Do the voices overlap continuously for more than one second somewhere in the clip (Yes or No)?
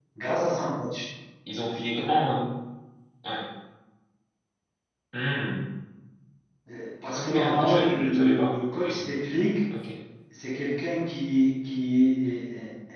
Yes